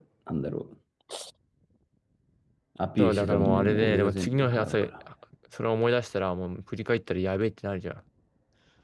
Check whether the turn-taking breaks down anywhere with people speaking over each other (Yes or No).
Yes